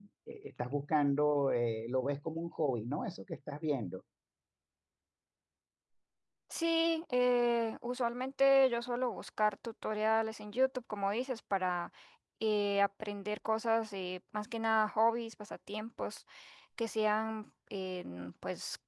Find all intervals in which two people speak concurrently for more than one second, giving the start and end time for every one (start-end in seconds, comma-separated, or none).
none